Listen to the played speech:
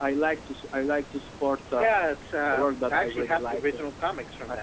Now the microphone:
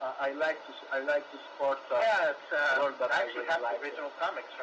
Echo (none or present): present